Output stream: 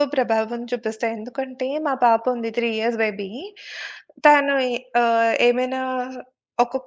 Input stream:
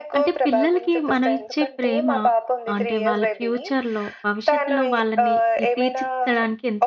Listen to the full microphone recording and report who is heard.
both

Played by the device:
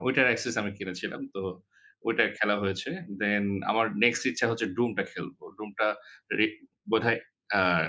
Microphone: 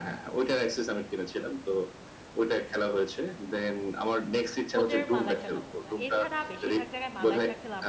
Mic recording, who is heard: both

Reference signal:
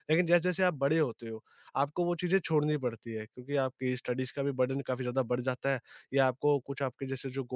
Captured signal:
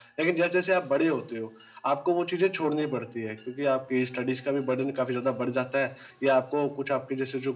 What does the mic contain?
echo only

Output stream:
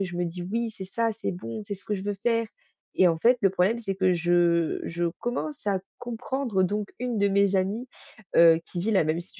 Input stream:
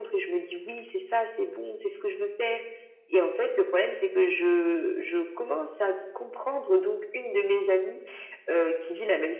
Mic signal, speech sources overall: echo only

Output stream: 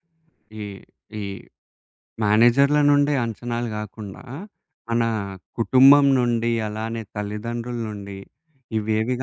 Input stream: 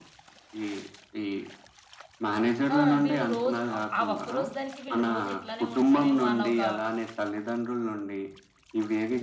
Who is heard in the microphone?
both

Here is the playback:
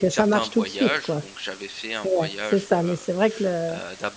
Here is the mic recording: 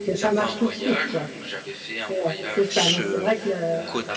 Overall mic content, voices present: both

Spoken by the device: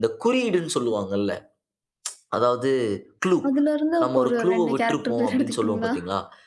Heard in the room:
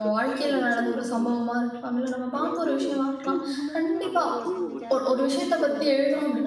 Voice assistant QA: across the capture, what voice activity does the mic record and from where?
both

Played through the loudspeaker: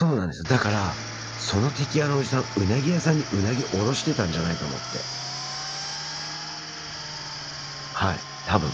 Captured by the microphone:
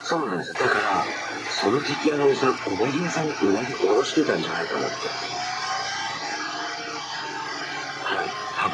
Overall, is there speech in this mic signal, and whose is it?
echo only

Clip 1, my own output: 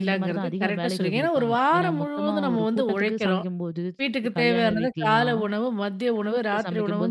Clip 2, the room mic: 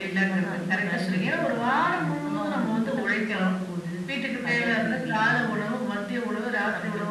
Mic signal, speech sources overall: echo only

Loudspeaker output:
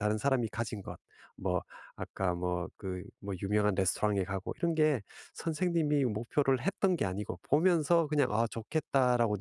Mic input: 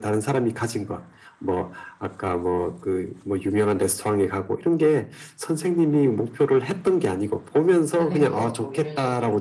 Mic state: both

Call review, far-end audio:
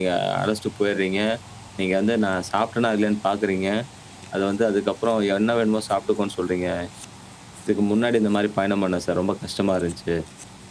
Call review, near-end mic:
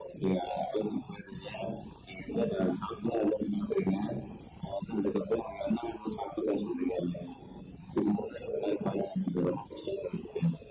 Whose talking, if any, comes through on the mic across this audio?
echo only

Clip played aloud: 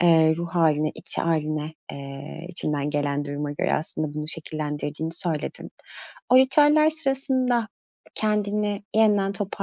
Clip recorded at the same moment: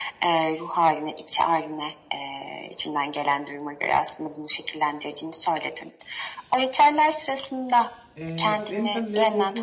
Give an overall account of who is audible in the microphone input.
both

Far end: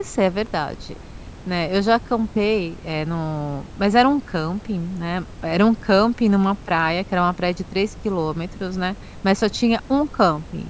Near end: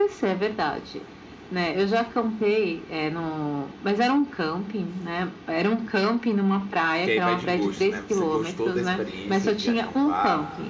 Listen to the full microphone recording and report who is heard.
both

